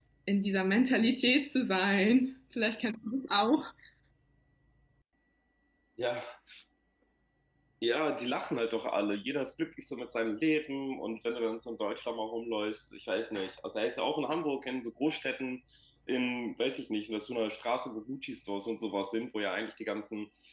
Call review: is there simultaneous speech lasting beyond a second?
No

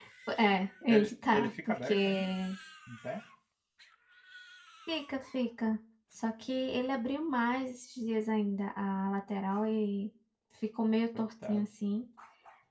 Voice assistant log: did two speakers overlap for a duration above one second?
Yes, from 0.9 s

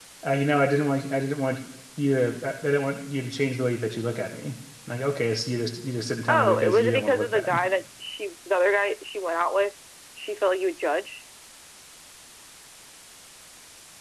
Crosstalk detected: Yes, from 6.3 s

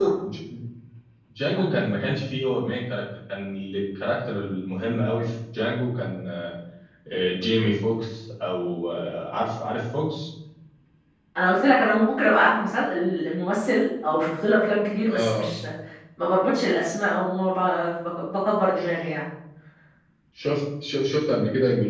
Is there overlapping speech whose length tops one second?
No

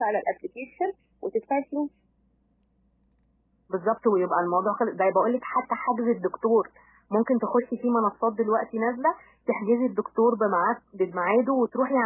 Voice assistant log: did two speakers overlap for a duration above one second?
No

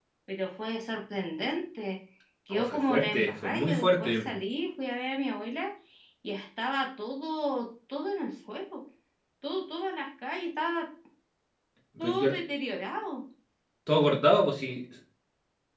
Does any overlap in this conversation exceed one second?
Yes, from 2.5 s

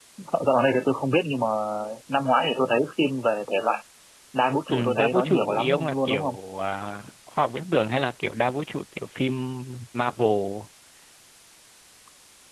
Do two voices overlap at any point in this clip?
Yes, from 4.7 s

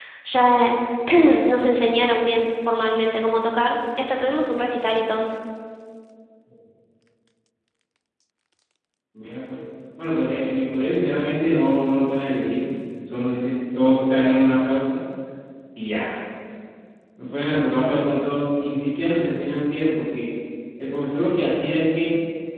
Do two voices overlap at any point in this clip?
No

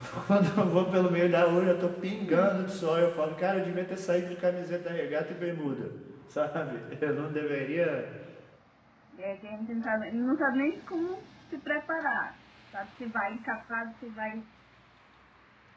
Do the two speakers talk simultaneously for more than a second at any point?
No

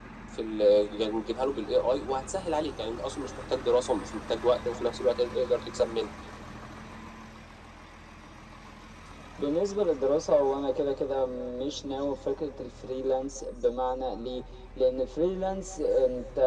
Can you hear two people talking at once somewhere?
No

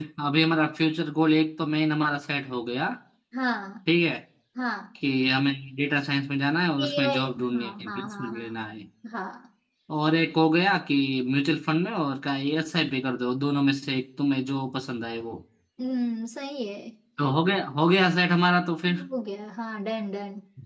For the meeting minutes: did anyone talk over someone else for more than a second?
Yes, from 6.8 s

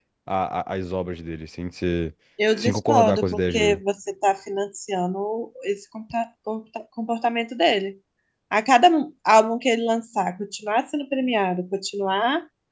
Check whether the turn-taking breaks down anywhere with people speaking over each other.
Yes, from 2.6 s

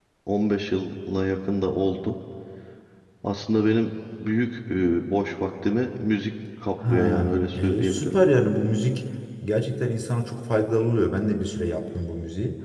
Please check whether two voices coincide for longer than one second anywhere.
Yes, from 6.8 s

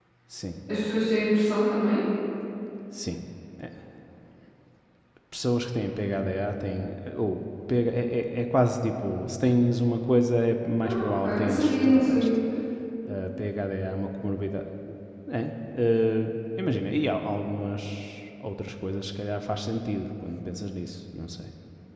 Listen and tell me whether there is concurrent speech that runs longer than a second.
Yes, from 10.8 s

